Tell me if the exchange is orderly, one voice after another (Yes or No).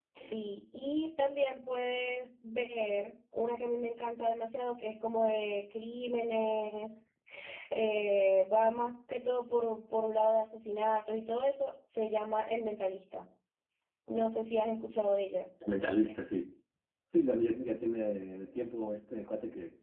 Yes